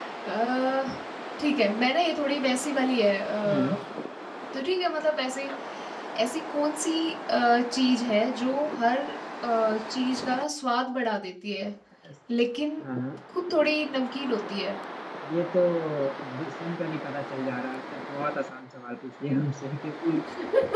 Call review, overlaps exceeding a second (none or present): none